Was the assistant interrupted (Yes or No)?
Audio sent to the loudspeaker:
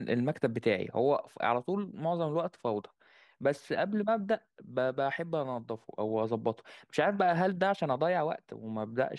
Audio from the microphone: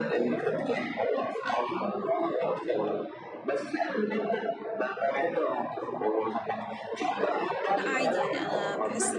Yes